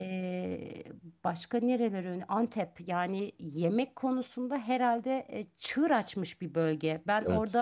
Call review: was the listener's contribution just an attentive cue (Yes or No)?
Yes